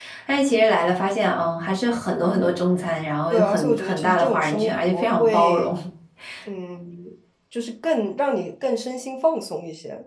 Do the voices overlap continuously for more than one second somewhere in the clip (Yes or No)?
Yes